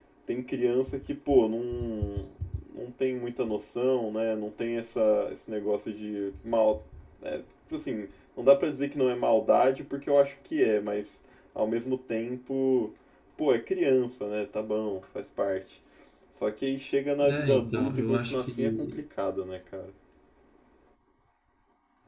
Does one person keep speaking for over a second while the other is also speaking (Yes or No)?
Yes